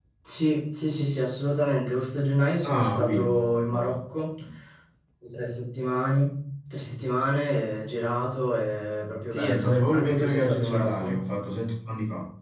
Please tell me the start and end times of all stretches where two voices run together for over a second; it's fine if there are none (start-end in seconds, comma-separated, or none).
2.6-4.0, 9.3-11.2